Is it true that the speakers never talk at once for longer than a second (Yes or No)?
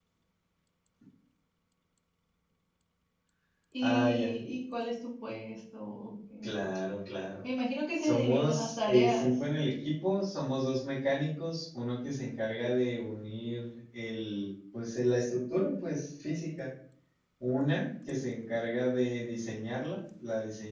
No